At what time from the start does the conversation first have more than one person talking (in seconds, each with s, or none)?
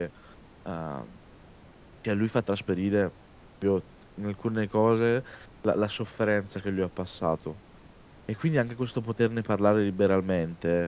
none